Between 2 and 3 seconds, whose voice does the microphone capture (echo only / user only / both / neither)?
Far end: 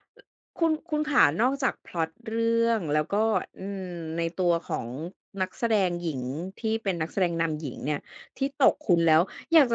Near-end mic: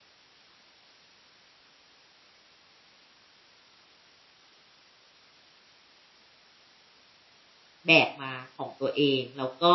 neither